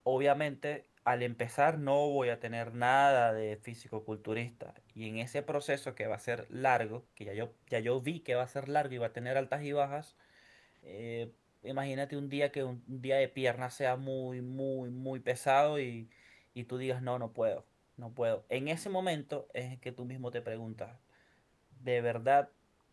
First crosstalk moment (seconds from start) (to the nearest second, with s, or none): none